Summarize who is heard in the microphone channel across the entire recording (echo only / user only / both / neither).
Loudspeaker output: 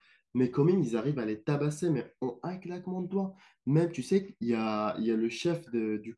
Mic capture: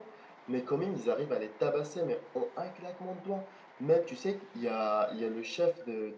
echo only